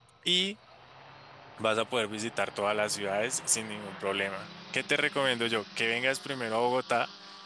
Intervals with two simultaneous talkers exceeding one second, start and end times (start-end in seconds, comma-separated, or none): none